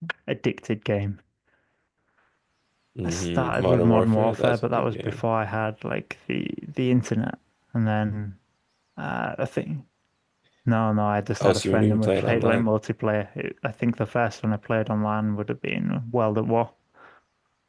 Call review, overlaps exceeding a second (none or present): present